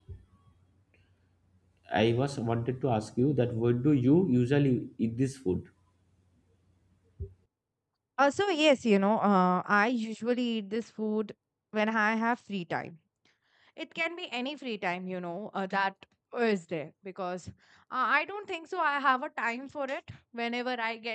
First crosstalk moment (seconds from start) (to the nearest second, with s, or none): none